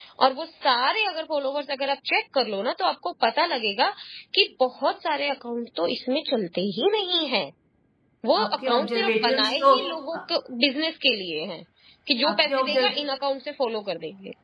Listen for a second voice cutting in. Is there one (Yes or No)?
Yes